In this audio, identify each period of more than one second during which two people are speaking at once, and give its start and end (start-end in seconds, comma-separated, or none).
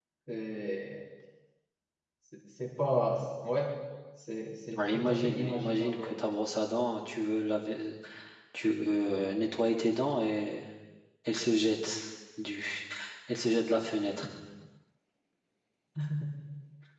4.8-6.1